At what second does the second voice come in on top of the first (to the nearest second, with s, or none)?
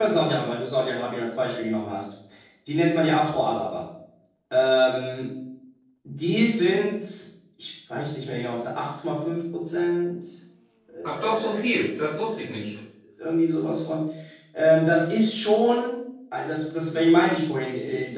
11 s